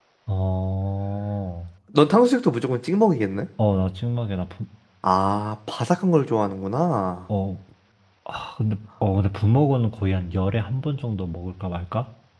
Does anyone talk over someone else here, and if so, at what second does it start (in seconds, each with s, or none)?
none